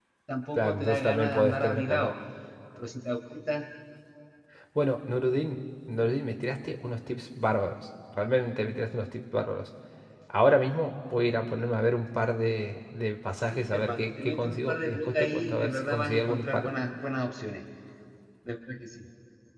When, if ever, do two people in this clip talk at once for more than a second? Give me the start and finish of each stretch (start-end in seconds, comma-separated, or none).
0.6-2.1, 13.5-16.7